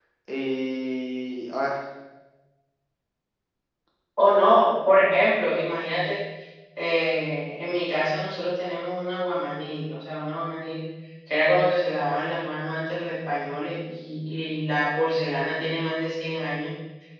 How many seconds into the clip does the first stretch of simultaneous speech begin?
none

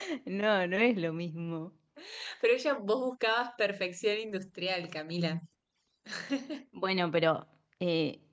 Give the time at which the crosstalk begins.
none

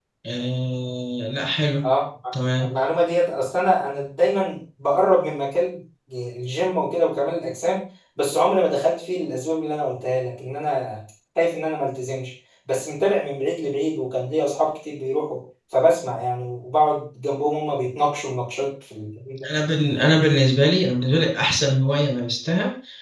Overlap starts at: none

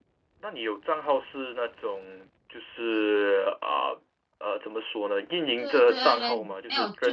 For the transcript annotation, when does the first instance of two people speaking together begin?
5.6 s

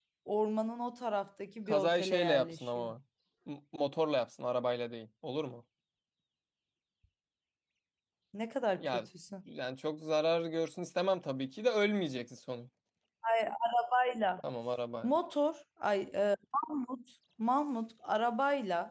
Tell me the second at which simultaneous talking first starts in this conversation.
1.7 s

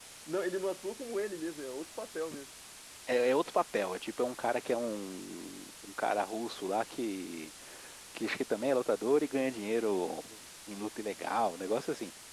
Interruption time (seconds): none

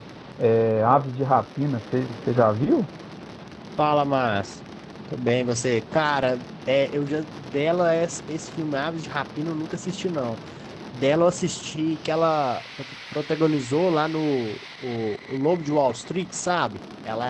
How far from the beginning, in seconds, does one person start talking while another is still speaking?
none

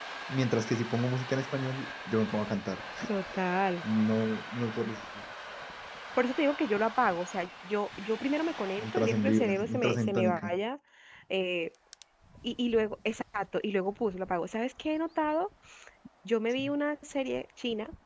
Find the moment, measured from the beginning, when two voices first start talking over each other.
8.8 s

